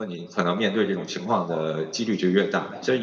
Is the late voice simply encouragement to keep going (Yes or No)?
Yes